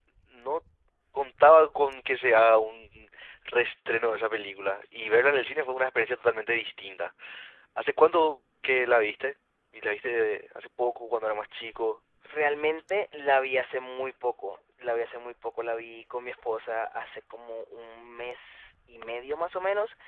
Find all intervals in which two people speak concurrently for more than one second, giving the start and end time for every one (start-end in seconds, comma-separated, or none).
none